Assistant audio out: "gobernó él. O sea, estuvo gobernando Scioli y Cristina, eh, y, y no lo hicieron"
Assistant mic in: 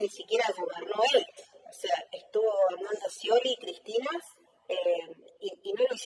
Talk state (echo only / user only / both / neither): echo only